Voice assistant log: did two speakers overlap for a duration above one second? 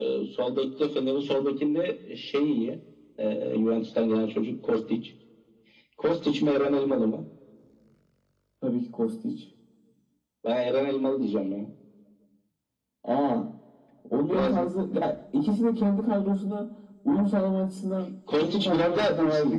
Yes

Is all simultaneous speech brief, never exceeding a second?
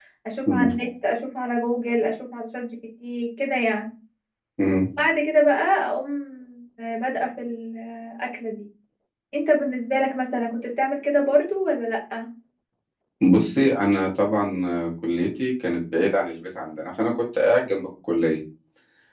Yes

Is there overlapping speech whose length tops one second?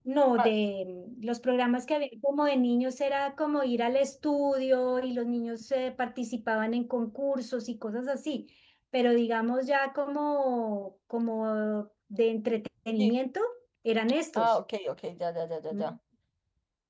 No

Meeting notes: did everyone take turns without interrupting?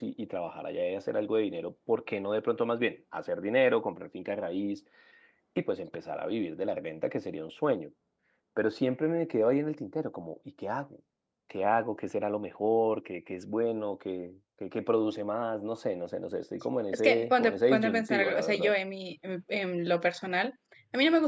No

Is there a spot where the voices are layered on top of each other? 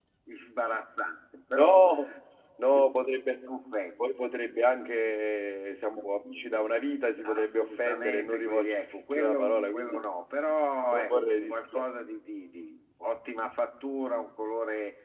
Yes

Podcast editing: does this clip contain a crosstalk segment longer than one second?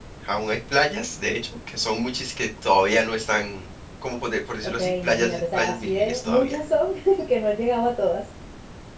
Yes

